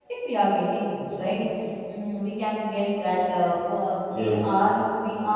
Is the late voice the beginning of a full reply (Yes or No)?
No